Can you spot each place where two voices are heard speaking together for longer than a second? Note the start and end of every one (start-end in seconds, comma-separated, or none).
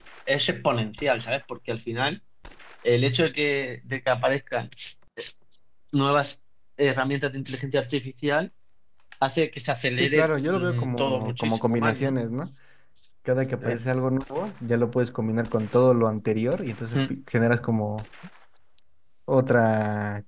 9.9-12.1